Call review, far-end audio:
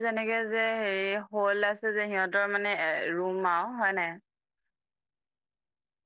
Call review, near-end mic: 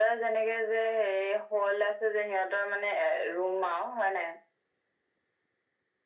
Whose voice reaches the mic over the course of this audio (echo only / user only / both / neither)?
echo only